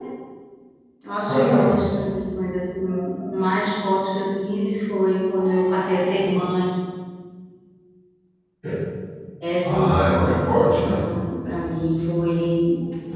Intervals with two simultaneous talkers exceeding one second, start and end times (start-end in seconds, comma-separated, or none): 9.6-10.9